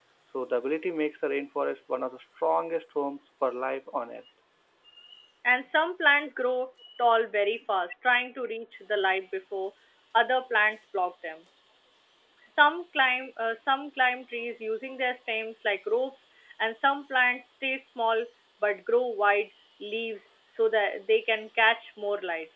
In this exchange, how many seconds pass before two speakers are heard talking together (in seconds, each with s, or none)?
none